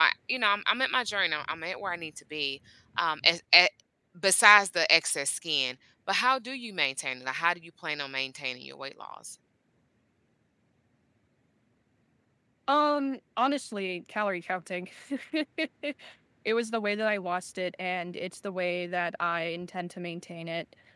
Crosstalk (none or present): none